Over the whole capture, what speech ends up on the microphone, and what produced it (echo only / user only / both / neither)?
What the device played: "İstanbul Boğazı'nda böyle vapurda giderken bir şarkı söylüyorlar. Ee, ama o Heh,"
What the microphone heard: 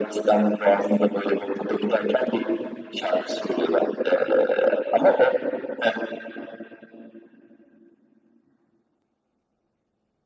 echo only